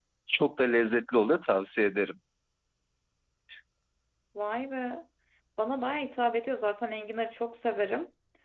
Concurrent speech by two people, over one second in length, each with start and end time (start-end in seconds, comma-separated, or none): none